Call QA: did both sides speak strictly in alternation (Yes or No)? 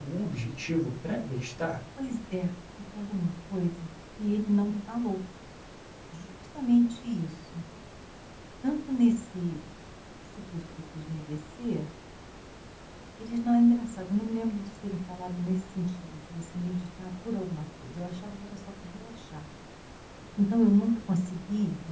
Yes